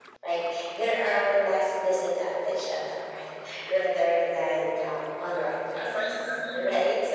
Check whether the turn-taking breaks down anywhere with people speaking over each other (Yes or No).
Yes